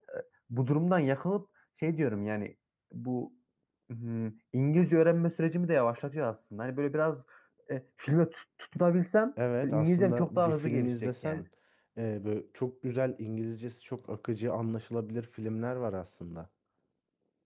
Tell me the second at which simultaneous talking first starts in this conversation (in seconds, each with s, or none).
9.6 s